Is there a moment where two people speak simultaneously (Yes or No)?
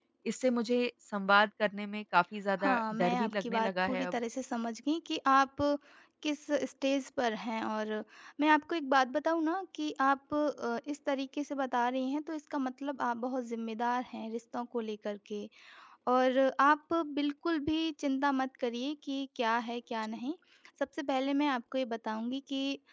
Yes